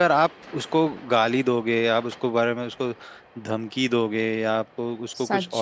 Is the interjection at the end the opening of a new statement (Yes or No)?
No